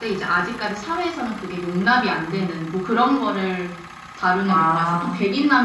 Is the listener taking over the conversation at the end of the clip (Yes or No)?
No